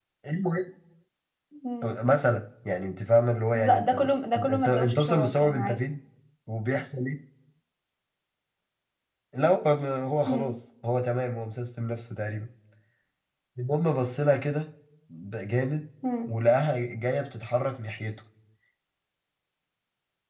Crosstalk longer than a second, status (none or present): present